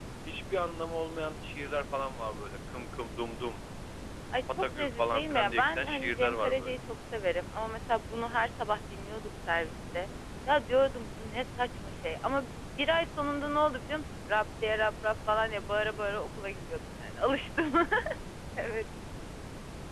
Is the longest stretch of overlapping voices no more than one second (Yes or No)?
No